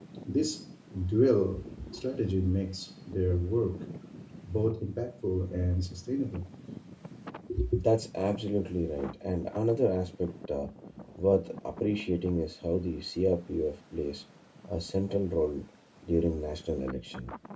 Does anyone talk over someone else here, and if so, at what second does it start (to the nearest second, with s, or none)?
none